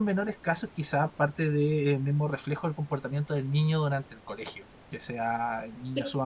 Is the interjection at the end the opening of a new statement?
No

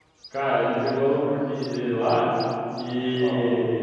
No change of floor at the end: Yes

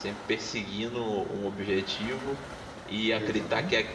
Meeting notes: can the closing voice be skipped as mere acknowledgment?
Yes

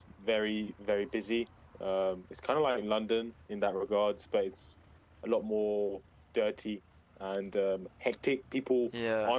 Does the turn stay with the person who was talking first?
Yes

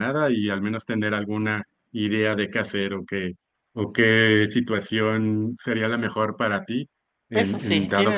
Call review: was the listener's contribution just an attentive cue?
No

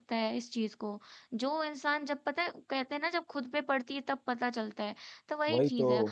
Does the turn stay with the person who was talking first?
Yes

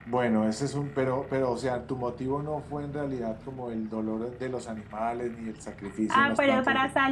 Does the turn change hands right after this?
Yes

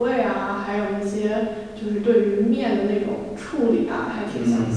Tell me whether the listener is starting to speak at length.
Yes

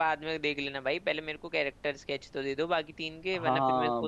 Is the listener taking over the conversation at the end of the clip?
Yes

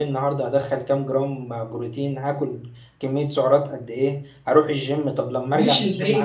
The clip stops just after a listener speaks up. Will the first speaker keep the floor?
No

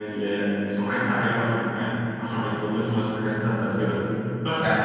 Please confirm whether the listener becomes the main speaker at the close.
No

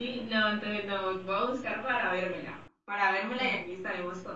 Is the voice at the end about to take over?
No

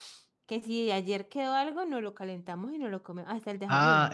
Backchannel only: No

